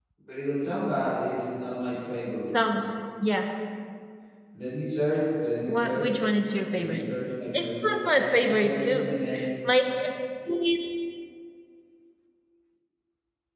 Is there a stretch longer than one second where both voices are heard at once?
Yes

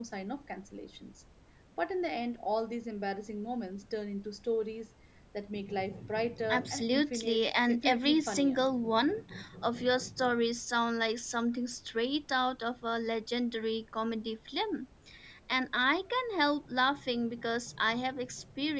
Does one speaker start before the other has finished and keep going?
Yes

